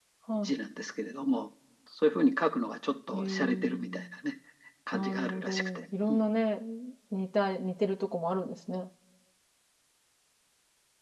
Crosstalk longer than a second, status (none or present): present